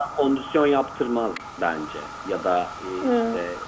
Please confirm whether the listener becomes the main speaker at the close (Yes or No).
No